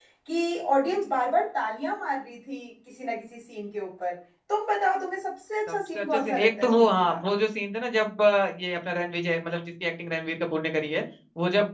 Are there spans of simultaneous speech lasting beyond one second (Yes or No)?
Yes